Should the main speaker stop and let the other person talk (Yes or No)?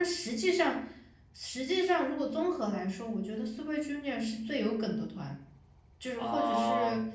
Yes